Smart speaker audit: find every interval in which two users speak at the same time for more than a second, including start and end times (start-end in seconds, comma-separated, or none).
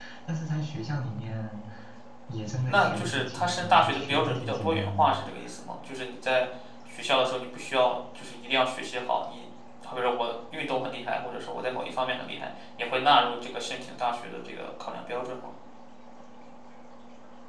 2.7-5.1